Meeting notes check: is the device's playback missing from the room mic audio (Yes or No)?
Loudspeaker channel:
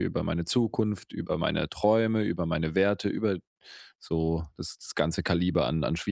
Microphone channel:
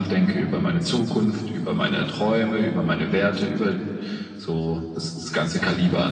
No